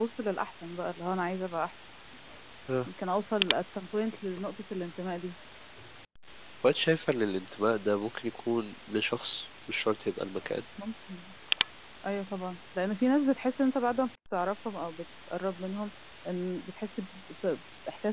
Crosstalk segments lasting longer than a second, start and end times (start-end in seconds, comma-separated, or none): none